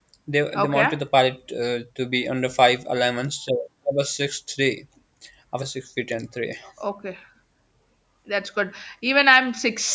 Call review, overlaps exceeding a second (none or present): none